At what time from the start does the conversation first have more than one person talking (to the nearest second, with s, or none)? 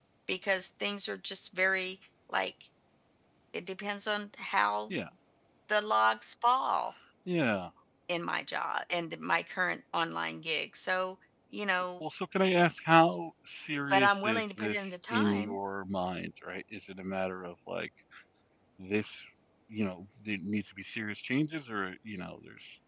14 s